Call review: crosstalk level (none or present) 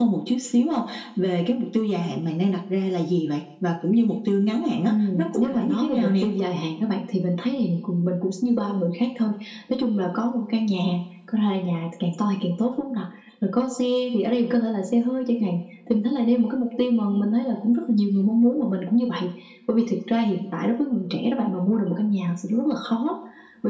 present